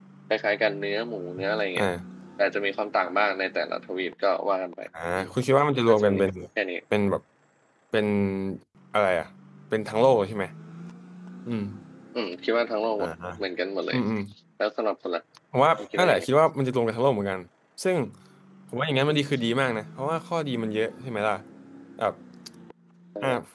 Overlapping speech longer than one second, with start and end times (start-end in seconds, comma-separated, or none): none